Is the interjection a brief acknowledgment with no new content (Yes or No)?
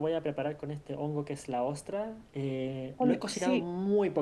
Yes